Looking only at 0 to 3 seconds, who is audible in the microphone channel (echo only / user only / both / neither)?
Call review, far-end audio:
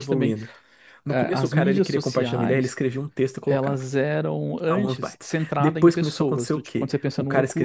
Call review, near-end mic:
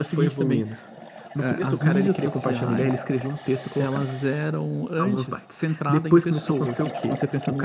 echo only